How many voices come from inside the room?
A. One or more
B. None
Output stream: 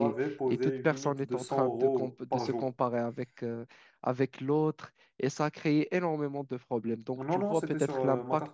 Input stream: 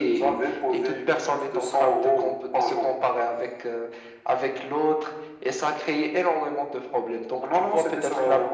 B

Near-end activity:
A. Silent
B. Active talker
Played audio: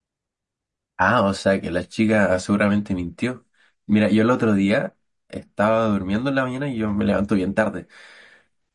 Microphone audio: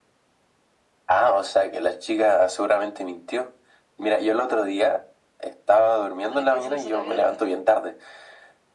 B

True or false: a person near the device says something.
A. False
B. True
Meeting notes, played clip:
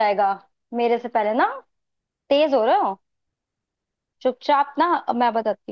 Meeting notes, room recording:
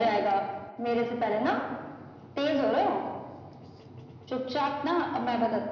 A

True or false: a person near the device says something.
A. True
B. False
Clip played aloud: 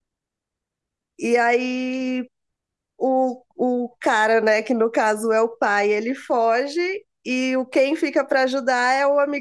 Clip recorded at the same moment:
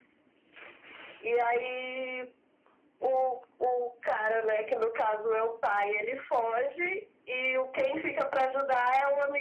B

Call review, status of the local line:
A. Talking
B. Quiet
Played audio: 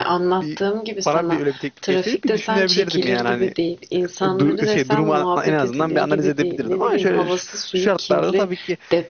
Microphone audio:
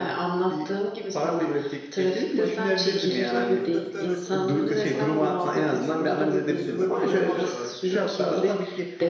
A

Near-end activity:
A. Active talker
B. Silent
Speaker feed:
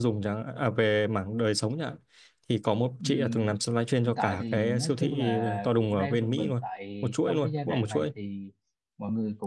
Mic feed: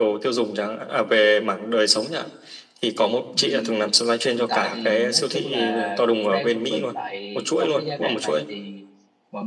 B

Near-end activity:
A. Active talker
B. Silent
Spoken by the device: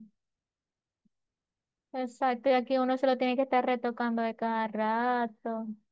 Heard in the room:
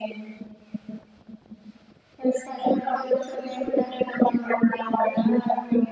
B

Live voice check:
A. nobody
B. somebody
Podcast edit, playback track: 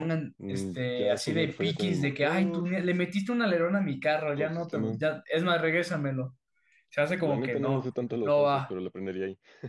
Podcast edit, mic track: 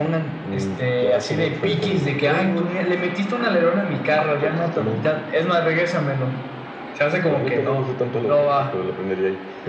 A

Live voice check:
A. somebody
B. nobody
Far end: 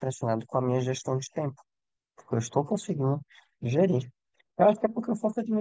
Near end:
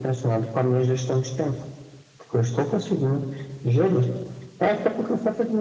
B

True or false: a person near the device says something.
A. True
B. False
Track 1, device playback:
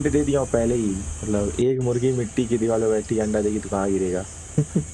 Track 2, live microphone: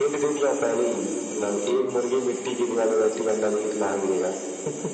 B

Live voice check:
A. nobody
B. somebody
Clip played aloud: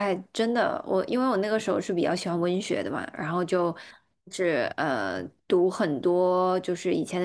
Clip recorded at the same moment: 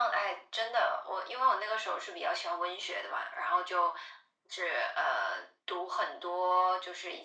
A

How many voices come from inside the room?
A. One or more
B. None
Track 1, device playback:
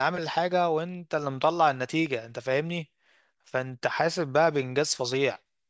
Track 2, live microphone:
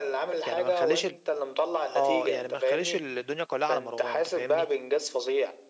A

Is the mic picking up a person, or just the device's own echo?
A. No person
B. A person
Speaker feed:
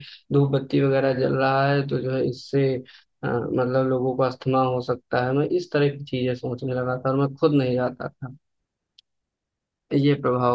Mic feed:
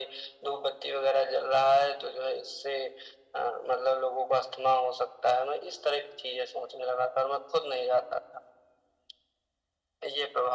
A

